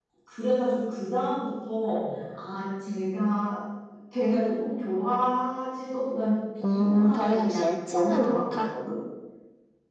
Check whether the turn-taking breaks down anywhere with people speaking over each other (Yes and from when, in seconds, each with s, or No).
Yes, from 6.6 s